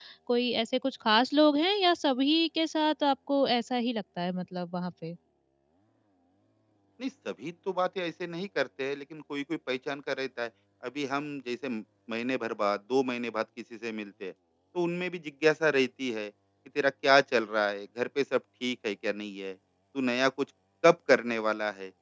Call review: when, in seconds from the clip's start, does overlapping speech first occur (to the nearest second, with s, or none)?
none